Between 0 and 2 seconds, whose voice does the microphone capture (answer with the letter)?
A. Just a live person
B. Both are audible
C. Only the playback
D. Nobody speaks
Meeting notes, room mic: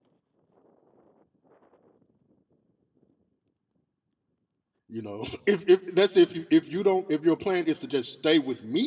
D